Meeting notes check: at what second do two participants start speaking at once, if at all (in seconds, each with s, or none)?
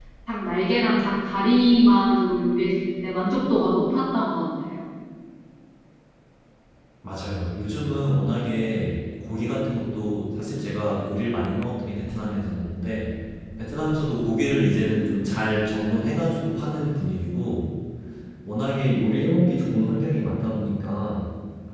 none